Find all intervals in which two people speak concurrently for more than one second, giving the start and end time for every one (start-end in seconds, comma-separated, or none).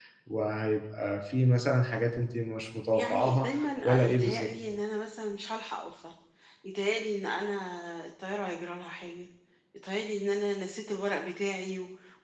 2.9-4.5